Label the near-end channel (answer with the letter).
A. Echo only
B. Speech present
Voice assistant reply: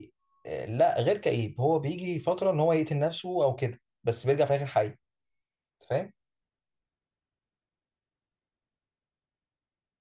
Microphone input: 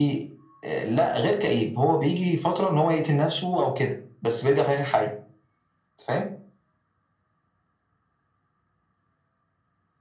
A